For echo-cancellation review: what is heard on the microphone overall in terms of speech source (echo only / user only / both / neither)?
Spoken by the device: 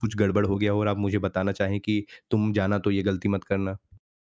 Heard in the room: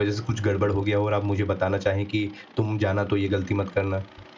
echo only